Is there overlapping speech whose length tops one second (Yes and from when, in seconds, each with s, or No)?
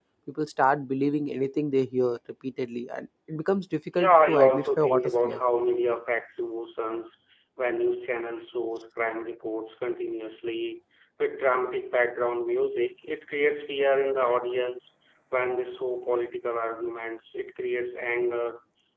Yes, from 3.9 s